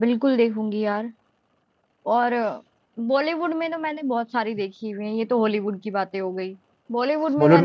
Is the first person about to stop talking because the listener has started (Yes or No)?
No